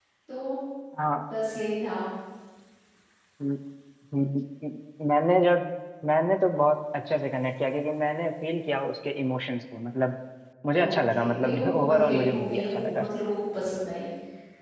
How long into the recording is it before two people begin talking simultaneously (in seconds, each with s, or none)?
10.8 s